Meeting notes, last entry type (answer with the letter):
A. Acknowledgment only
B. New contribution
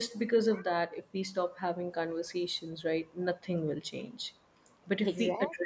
A